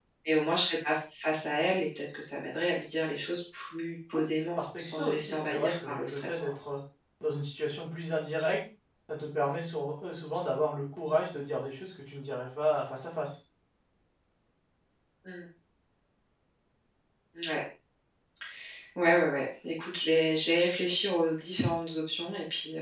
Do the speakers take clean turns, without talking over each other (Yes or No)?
No